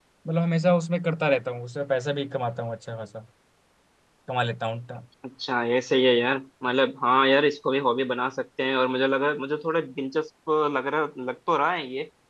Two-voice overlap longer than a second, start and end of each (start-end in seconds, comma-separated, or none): none